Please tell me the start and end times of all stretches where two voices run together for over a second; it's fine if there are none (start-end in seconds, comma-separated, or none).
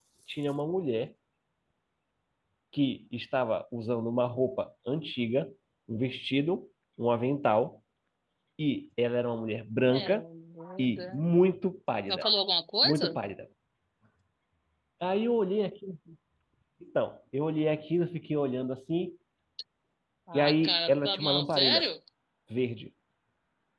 20.3-21.8